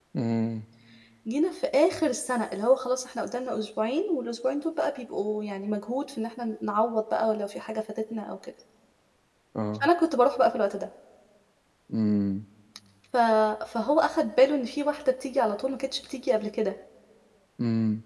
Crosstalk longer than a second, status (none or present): none